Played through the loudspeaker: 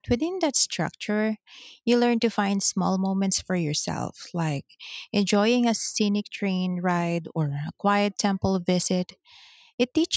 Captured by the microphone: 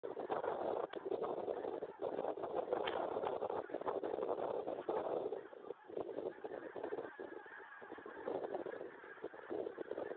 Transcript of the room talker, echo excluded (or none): none